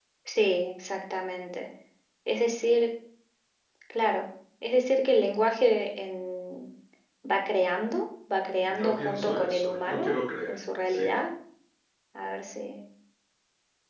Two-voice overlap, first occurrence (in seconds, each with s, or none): 8.6 s